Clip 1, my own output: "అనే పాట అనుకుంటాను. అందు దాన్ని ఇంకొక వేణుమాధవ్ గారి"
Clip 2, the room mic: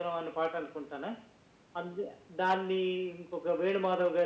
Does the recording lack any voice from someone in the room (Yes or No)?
Yes